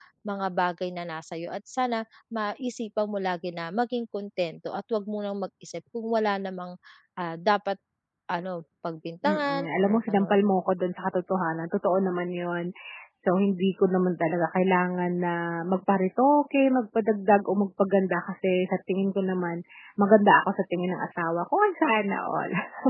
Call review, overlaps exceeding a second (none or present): present